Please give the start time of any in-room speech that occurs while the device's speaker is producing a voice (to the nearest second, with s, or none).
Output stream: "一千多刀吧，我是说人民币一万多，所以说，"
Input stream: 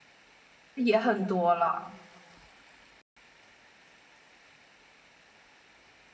1 s